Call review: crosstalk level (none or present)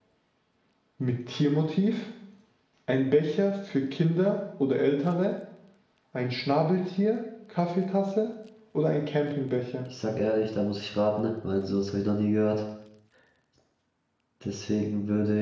none